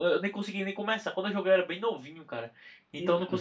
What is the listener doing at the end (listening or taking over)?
listening